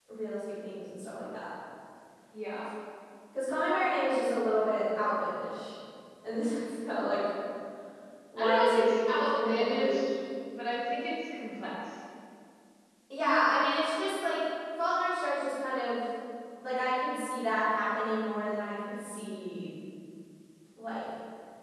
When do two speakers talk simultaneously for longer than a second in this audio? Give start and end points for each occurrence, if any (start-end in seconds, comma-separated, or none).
8.4-10.0